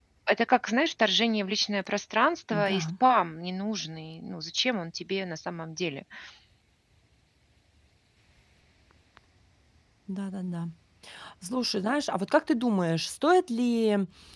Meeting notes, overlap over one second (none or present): none